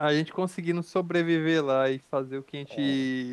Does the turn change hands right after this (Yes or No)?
No